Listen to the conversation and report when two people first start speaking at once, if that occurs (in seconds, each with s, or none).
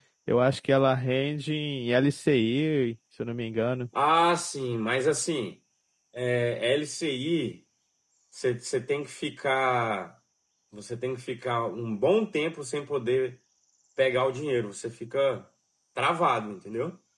none